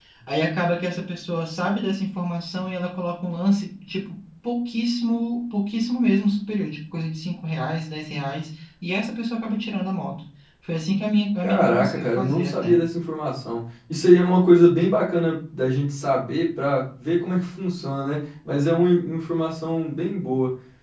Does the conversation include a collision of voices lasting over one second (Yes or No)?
Yes